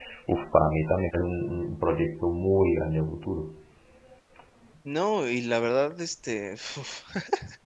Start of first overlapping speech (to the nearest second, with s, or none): none